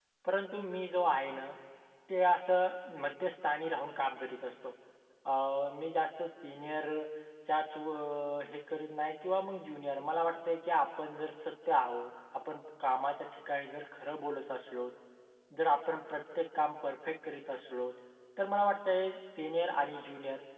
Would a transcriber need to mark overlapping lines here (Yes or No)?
No